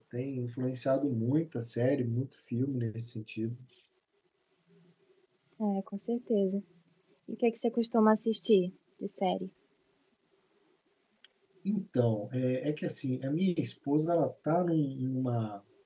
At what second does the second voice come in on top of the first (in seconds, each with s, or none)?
none